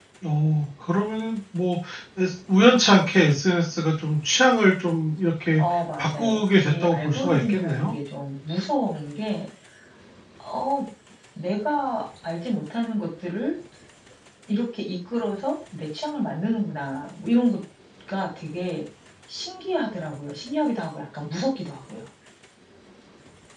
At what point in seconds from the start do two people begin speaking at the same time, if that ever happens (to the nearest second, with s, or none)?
6 s